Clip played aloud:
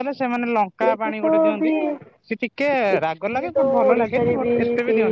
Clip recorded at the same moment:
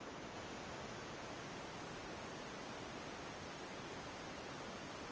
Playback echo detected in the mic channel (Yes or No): No